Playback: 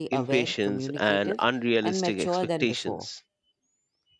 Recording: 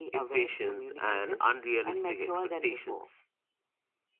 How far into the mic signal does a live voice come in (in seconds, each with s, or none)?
none